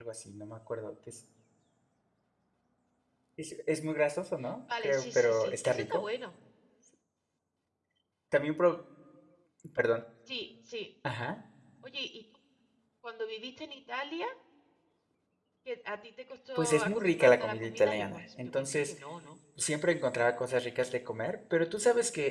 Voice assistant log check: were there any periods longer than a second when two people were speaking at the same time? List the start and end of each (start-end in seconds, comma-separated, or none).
4.8-6.0, 16.6-18.9